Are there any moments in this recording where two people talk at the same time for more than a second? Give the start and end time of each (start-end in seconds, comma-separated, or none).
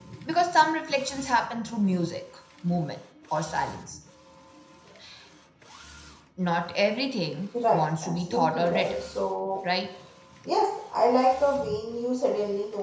7.7-9.1